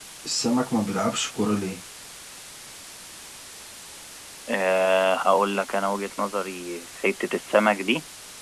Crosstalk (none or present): none